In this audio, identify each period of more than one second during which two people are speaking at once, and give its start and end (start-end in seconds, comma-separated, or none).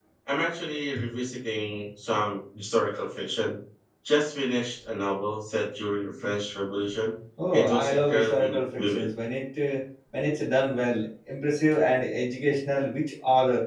7.5-9.1